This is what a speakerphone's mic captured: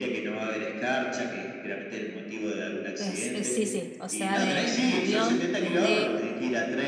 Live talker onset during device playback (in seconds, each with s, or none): 3.0 s